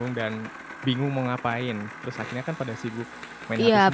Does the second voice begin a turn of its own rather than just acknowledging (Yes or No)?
Yes